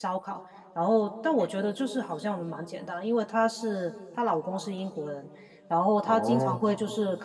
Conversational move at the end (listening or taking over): listening